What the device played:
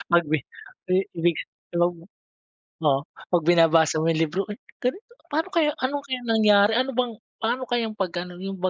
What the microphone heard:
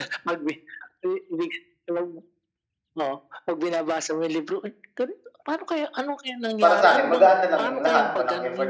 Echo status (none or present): present